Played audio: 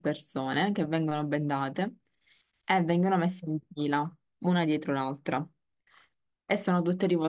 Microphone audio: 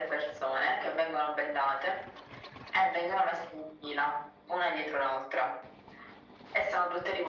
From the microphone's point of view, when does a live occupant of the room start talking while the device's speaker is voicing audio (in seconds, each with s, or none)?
none